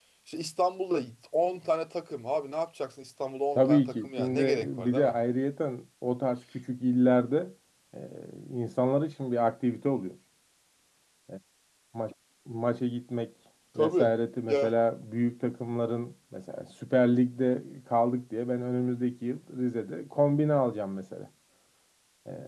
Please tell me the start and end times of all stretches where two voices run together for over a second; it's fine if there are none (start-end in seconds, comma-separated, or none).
3.5-5.1